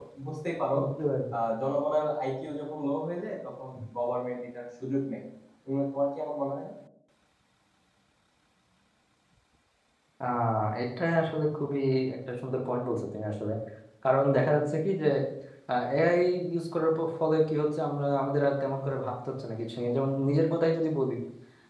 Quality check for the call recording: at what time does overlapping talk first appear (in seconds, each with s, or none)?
none